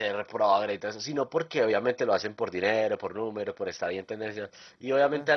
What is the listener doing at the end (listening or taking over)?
listening